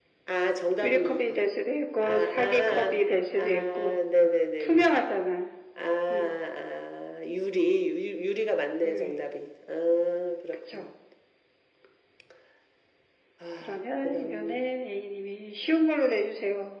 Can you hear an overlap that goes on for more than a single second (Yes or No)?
Yes